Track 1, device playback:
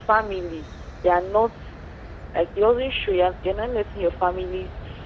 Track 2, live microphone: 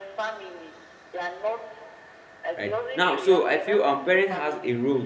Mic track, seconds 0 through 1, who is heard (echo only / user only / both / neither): echo only